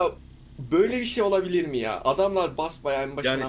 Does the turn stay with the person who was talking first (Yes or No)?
No